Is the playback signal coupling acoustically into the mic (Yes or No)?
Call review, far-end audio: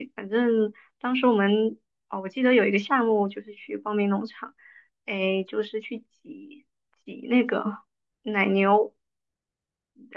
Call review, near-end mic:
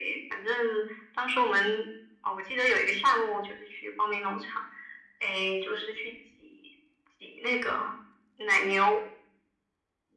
Yes